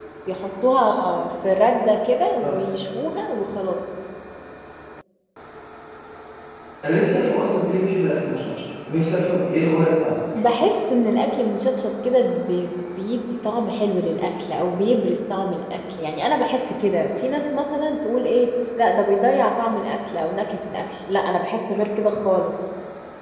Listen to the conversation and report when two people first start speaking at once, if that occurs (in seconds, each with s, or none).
none